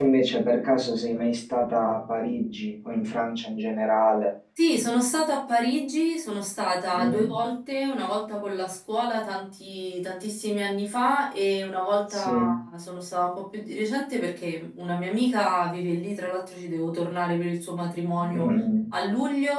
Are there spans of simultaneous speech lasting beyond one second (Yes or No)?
No